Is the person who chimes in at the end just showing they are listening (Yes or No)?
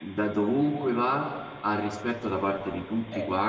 Yes